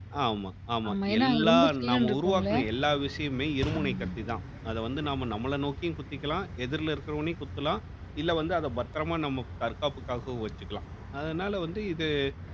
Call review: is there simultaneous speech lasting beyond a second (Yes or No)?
Yes